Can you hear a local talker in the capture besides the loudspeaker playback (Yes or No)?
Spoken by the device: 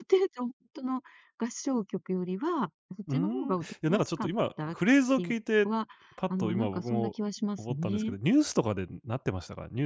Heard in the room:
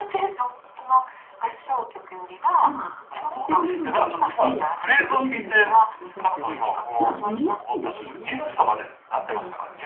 Yes